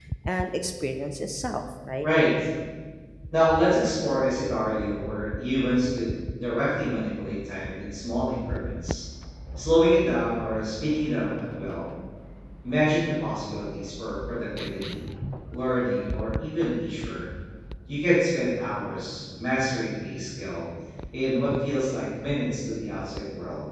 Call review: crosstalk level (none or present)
none